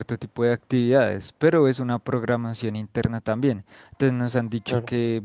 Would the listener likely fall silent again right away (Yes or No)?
Yes